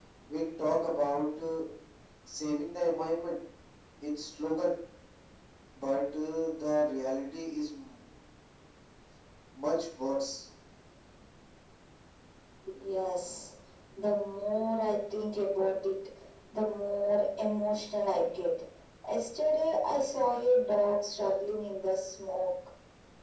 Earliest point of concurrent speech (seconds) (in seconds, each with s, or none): none